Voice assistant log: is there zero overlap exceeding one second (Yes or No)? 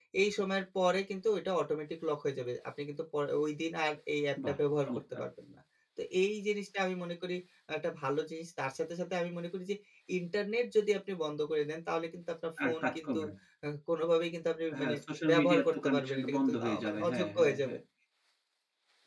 No